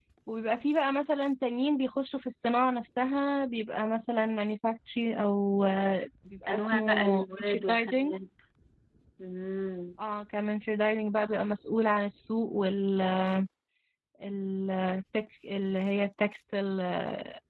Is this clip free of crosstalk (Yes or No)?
No